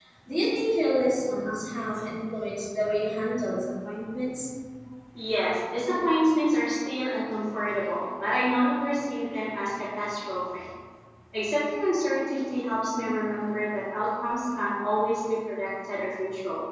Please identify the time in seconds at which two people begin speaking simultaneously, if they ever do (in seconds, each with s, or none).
none